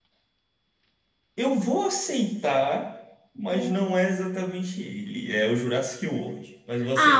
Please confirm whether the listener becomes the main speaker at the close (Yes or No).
Yes